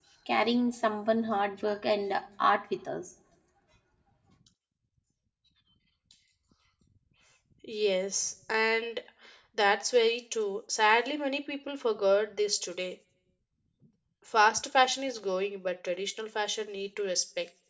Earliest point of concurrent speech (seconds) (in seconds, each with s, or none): none